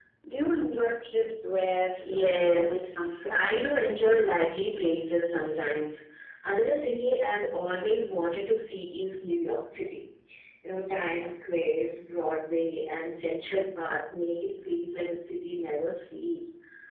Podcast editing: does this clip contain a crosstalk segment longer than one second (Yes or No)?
Yes